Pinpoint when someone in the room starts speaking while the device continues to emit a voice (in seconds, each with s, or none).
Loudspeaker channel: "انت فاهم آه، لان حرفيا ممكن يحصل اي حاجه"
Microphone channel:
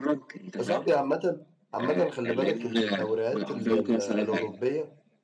0.6 s